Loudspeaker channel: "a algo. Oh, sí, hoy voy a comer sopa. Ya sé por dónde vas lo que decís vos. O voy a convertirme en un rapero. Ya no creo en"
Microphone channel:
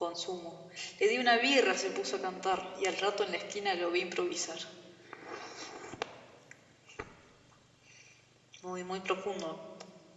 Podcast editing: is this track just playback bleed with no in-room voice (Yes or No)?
No